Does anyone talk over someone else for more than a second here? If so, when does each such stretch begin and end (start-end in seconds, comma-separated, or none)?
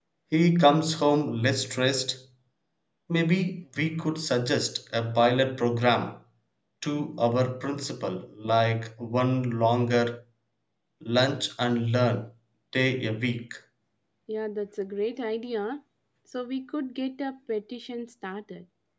none